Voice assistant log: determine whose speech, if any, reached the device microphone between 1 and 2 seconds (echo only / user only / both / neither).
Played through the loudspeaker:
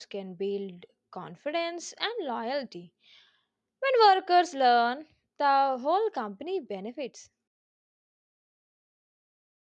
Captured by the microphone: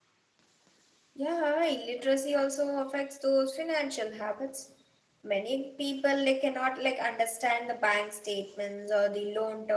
user only